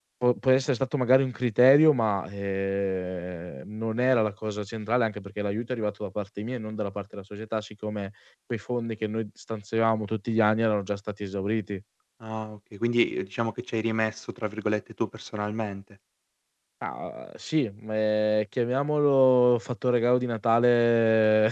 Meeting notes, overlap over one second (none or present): none